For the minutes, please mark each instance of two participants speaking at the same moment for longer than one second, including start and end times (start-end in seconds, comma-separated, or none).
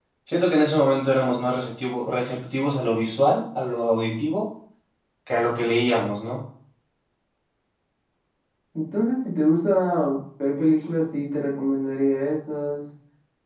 none